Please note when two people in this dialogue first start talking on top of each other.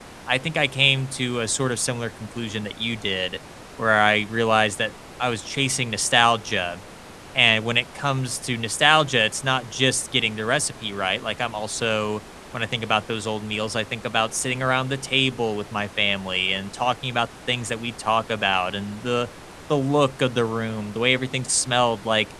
none

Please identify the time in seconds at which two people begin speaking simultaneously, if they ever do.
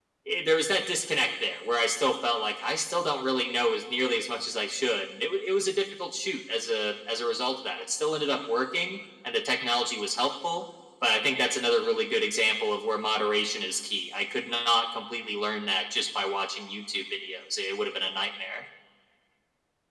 none

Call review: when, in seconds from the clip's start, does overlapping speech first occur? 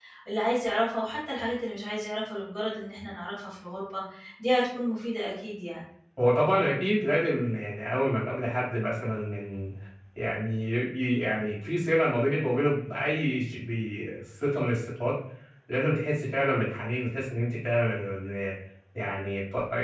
none

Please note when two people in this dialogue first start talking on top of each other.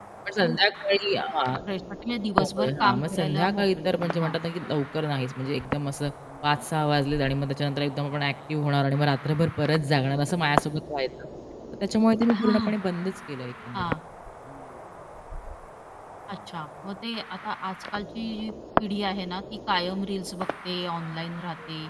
2.4 s

